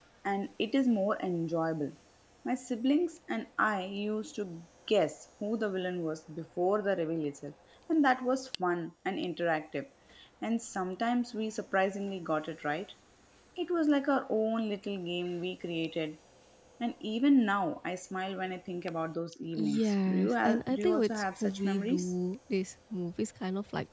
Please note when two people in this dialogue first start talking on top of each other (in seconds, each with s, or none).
19.6 s